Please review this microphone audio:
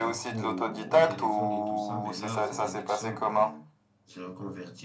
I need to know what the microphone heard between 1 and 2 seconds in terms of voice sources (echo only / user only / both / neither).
both